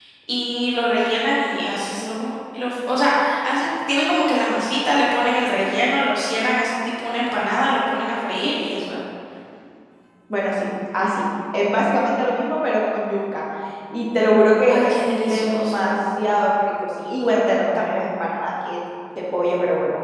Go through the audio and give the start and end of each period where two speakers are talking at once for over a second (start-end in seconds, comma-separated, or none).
14.7-16.0